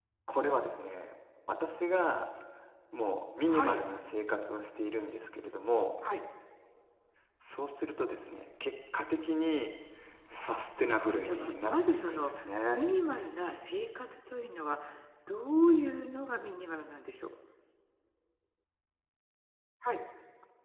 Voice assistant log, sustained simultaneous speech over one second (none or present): present